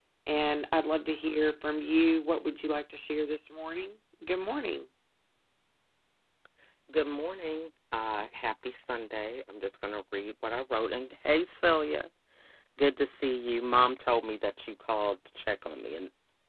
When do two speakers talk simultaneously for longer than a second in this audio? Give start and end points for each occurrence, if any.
none

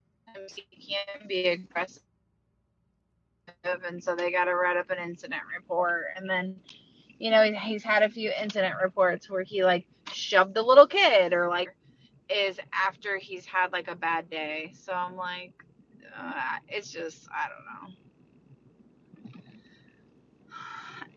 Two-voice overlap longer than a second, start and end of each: none

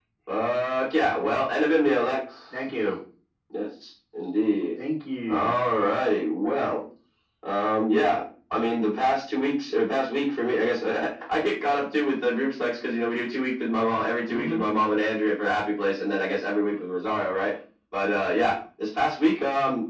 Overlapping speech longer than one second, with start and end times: none

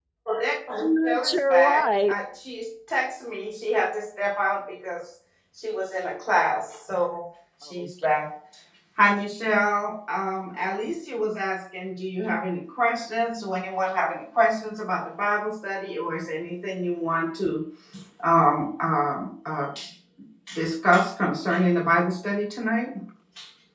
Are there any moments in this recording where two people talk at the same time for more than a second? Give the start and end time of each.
0.8-2.1

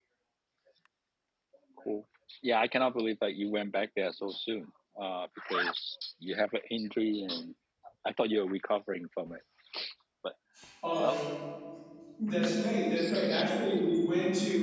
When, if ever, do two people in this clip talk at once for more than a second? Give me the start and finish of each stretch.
none

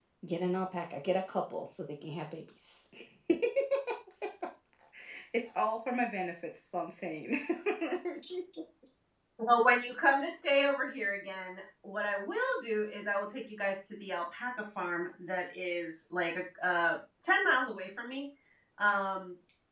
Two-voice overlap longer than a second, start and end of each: none

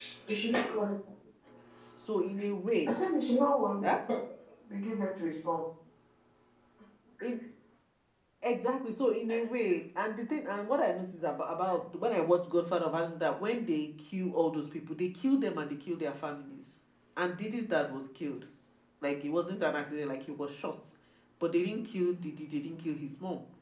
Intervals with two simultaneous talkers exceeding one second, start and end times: none

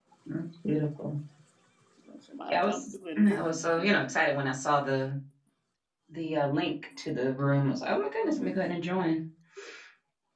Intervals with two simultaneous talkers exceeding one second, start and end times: 2.5-4.1

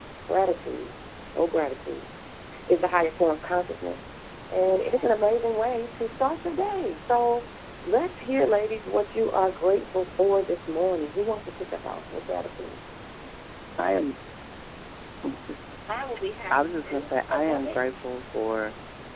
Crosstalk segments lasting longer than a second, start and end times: 16.5-18.1

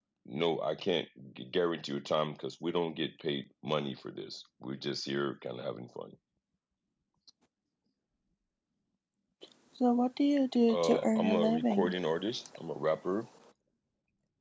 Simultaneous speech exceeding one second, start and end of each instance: 10.7-11.9

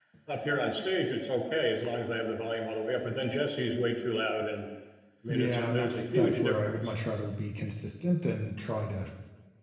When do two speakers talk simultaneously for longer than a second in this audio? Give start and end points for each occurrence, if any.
5.3-6.9

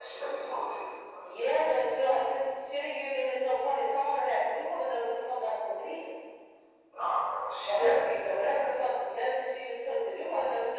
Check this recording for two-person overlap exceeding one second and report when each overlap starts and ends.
7.7-9.0

